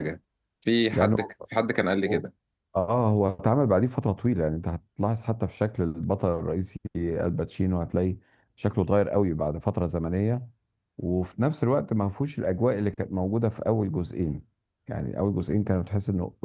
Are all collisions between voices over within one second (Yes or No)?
Yes